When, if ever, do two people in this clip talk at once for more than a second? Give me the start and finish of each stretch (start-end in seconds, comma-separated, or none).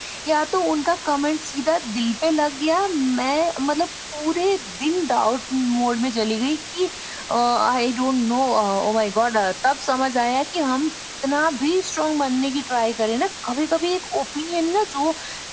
none